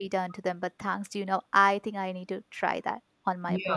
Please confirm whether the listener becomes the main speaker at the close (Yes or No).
Yes